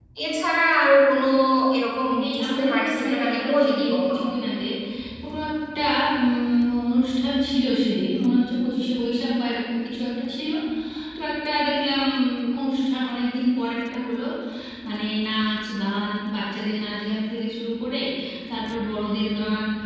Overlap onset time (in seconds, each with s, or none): 2.2 s